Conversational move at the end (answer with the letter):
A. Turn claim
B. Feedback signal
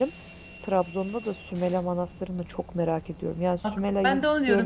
A